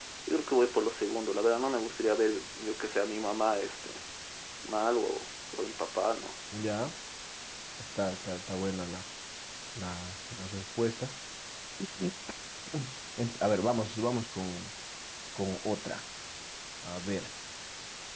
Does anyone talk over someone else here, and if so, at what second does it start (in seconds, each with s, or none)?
none